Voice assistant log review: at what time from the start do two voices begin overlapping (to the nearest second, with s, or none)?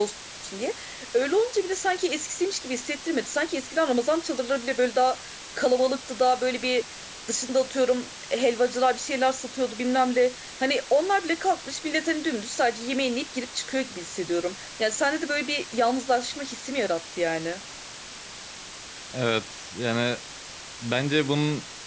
none